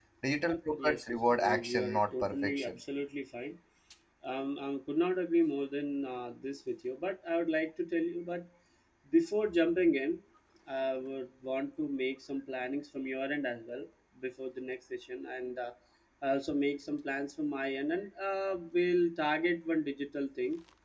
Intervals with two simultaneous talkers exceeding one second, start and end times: 0.8-2.7

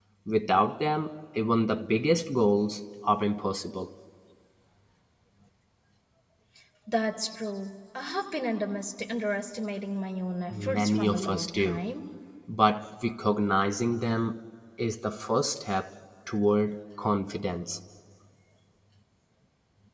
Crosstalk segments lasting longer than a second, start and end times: 10.5-11.8

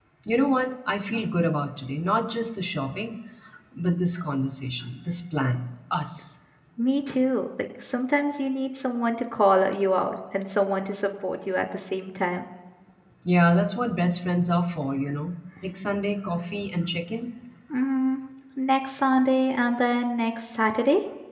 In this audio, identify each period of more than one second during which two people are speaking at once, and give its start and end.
none

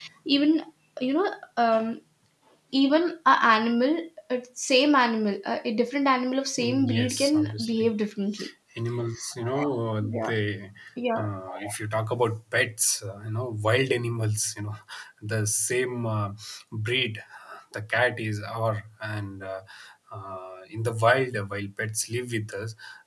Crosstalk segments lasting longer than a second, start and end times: 6.6-7.9

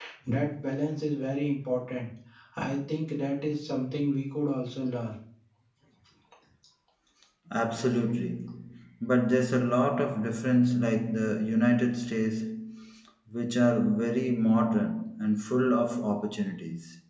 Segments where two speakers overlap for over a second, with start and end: none

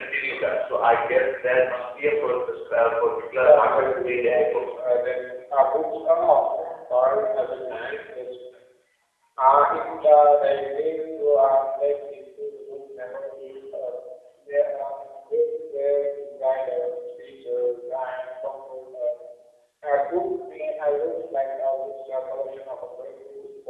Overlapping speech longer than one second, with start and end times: 3.3-4.6

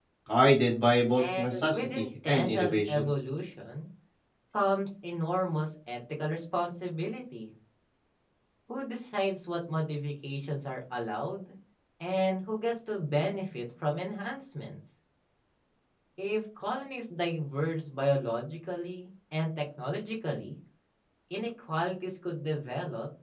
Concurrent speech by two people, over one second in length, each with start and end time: 1.2-3.1

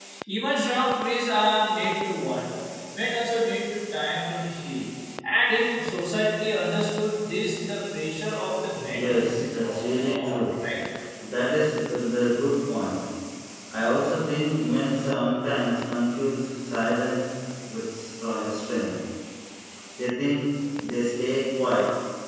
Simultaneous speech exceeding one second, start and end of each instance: 8.9-10.4

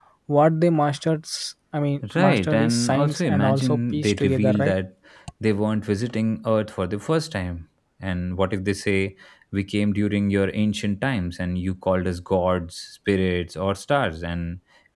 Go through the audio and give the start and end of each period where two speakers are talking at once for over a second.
2.1-4.7

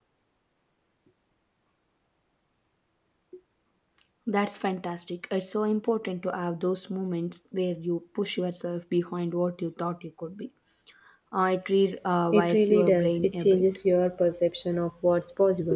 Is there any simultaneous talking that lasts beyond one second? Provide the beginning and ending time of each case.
12.3-13.6

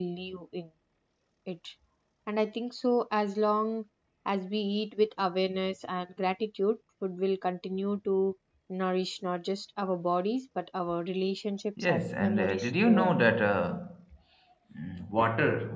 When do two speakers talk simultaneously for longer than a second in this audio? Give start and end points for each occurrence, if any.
11.8-13.1

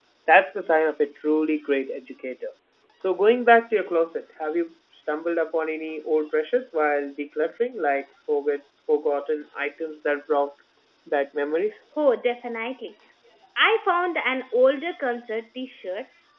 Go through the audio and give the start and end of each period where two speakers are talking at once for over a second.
none

